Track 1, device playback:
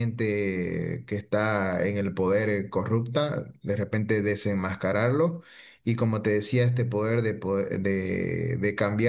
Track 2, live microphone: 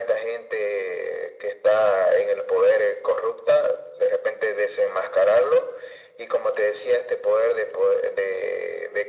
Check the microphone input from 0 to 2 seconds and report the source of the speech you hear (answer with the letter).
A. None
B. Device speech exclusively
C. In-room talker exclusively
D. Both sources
B